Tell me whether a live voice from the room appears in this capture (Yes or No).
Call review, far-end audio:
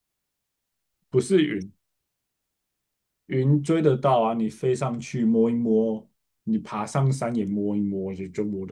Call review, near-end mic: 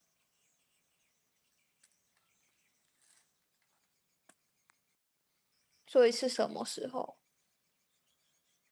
Yes